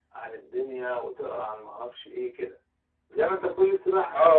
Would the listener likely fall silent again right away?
No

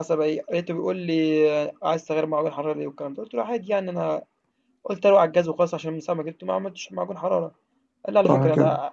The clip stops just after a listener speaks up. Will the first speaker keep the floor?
Yes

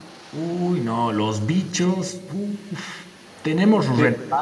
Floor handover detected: No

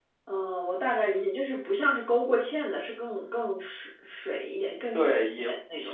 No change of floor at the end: No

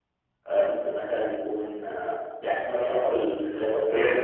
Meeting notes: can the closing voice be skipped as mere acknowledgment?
No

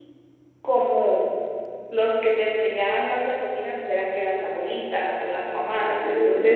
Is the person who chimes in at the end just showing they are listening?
Yes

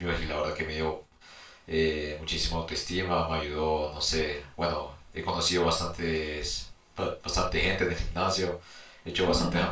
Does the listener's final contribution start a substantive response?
No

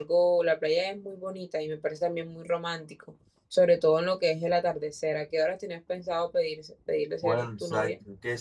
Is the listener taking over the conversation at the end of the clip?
Yes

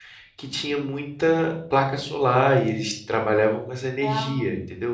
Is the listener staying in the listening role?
Yes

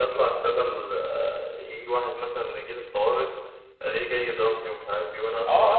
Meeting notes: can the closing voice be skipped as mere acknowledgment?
No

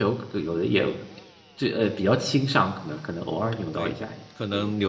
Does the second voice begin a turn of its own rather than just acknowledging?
Yes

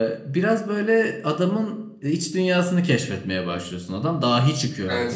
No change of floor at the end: No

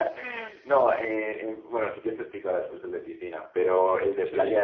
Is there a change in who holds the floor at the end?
No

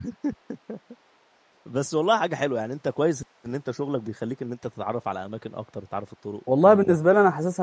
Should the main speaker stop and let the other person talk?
Yes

